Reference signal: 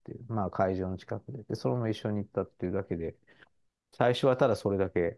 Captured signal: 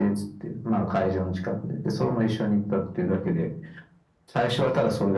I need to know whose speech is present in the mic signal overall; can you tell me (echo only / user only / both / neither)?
echo only